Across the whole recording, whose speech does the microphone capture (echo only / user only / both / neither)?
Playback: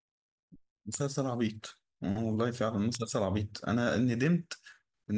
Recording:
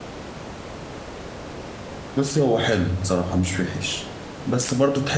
user only